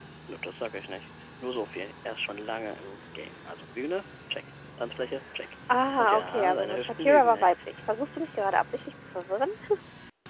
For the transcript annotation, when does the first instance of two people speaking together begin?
6.0 s

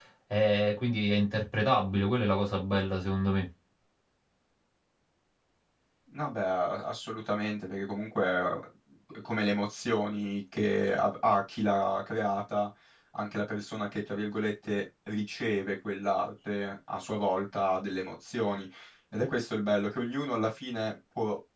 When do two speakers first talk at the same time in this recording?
none

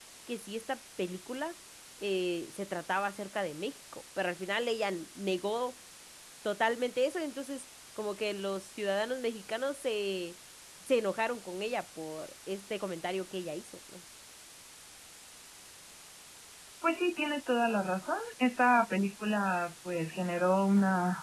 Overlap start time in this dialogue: none

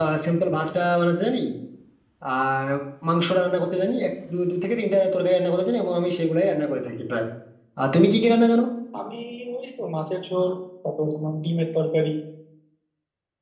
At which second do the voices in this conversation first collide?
none

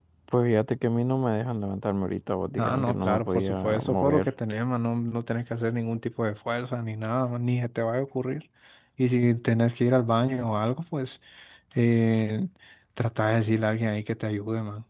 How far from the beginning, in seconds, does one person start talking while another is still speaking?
2.6 s

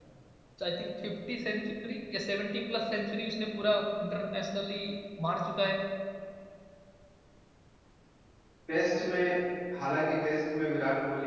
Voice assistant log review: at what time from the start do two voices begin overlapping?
none

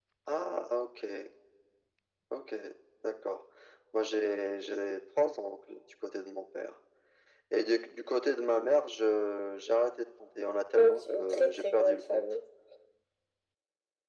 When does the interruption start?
10.8 s

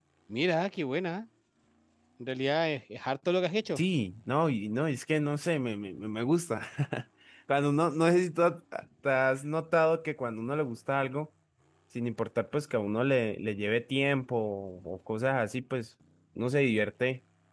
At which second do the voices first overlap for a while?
none

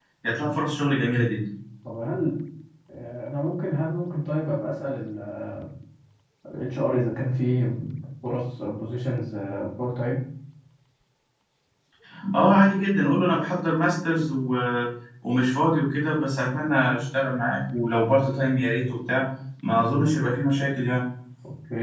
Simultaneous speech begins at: none

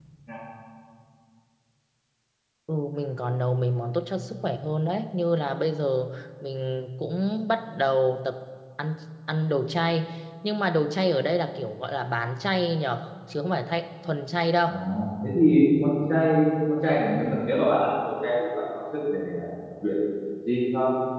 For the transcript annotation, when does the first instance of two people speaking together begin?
none

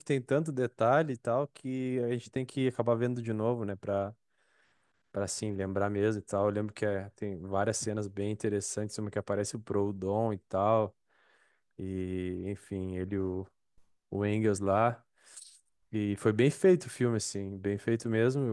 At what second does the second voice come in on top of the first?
none

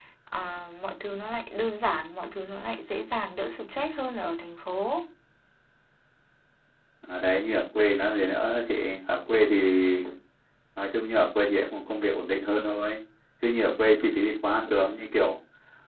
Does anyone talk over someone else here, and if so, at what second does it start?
none

